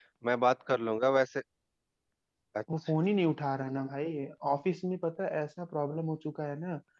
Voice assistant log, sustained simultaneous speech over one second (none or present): none